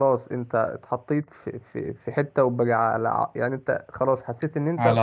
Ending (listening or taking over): listening